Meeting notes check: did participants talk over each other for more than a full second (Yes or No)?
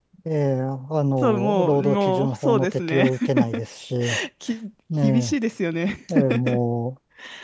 Yes